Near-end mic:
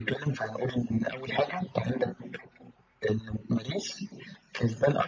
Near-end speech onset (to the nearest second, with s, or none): none